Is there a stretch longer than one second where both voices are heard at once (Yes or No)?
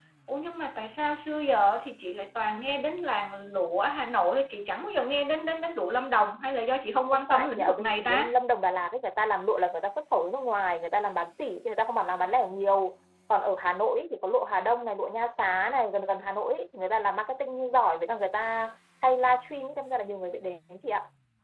Yes